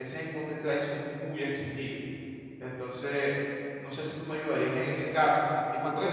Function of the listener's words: listening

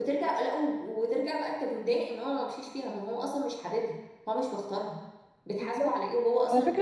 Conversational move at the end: taking over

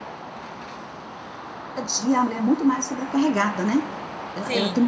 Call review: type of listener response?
listening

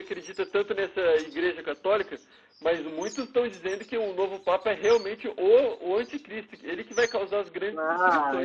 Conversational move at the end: taking over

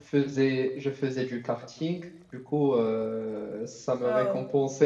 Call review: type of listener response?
listening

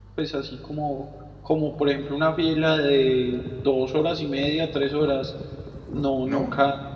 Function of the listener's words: listening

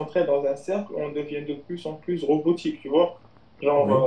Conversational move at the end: listening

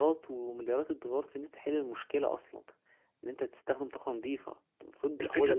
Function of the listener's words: taking over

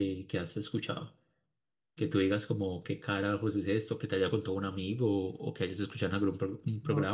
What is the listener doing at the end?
taking over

